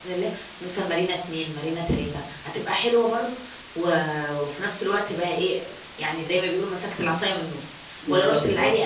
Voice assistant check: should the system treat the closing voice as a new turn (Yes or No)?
No